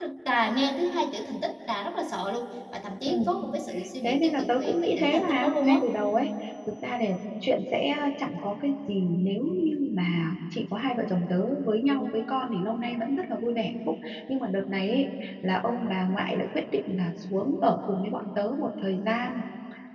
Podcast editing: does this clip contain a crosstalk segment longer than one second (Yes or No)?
Yes